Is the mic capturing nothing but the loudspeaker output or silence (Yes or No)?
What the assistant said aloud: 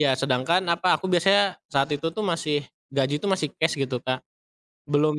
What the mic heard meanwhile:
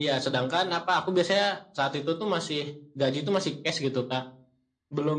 Yes